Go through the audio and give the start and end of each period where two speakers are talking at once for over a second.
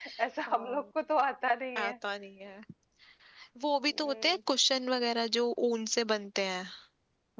none

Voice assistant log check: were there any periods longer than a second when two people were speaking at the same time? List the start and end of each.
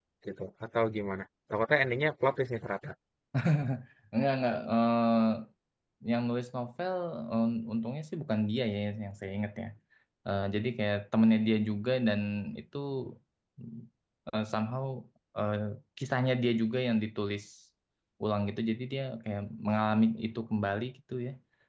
none

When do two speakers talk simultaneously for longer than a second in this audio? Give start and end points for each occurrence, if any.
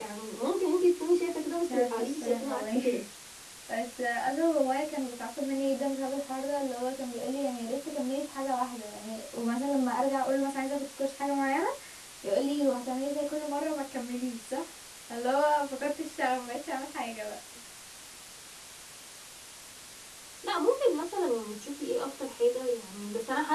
1.7-3.0

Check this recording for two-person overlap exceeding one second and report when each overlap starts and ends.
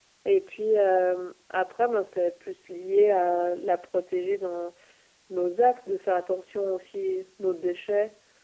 none

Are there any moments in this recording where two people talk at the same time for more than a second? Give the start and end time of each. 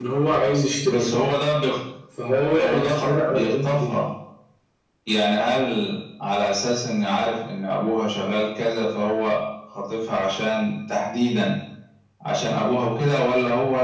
2.6-3.9

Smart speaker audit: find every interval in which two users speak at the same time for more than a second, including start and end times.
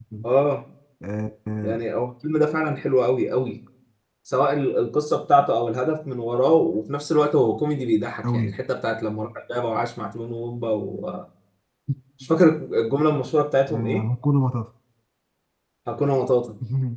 none

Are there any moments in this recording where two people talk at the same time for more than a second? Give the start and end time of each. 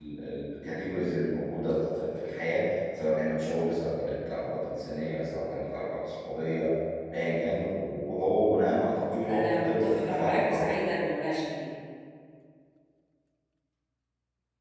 8.8-10.7

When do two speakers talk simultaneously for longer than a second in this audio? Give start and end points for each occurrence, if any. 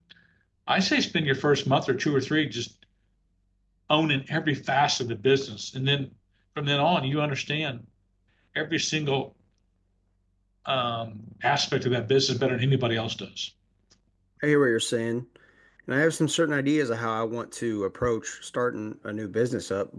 none

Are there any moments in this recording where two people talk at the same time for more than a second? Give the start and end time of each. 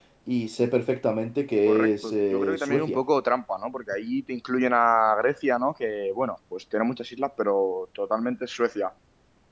1.7-3.0

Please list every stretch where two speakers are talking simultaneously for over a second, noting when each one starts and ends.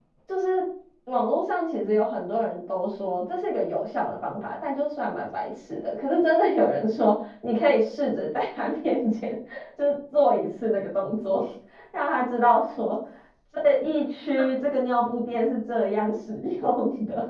none

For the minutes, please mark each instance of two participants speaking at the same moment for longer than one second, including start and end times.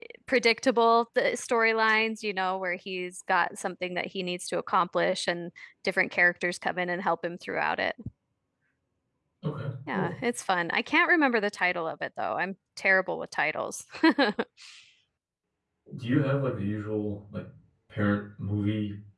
none

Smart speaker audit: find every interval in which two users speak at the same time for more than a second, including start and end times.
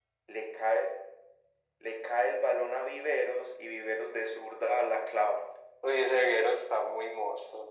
none

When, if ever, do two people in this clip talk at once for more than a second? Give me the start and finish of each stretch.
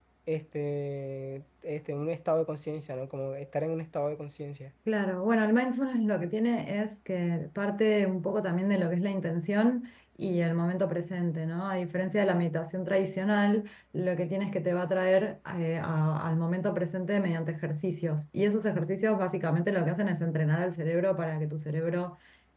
none

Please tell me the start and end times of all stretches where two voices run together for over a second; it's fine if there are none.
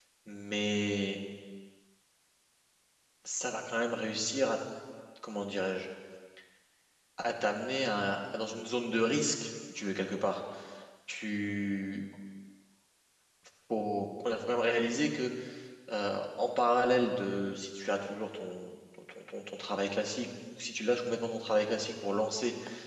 none

